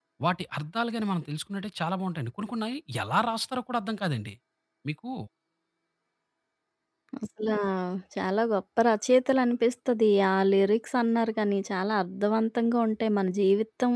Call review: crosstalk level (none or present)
none